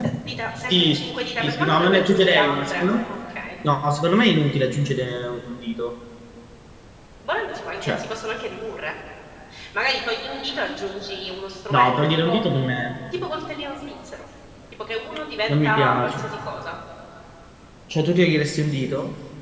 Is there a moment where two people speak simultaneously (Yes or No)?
Yes